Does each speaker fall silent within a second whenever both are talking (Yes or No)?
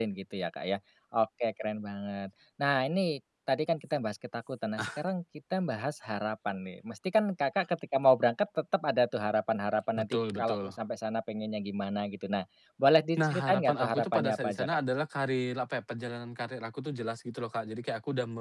No